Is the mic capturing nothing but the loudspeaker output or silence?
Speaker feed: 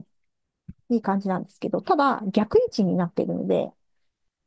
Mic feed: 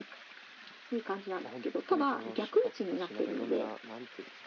No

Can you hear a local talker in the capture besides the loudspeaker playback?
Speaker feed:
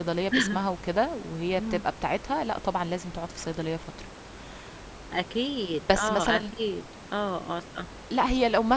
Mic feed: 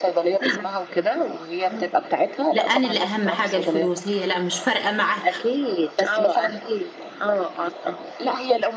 Yes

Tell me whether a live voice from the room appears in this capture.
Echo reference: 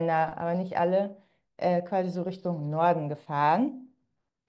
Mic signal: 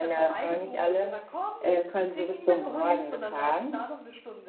Yes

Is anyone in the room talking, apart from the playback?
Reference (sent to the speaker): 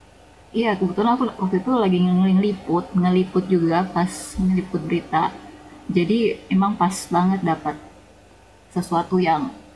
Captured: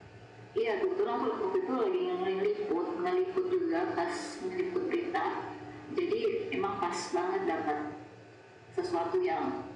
No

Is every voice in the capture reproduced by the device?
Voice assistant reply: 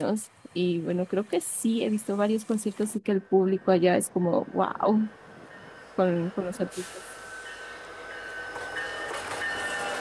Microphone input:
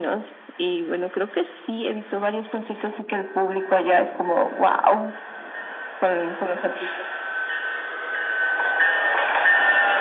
Yes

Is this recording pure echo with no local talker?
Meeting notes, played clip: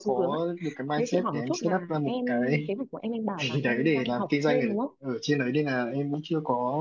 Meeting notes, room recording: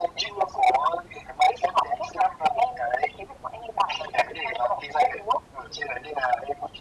Yes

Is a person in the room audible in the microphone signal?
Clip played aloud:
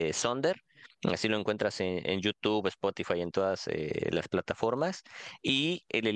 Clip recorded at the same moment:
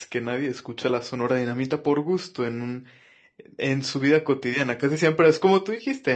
Yes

